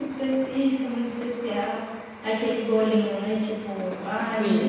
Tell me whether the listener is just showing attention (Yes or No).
Yes